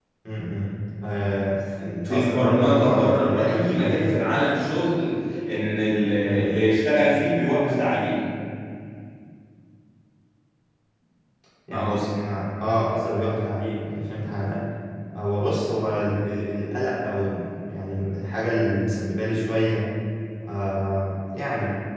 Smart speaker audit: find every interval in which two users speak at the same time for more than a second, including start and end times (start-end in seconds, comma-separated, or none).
2.0-4.1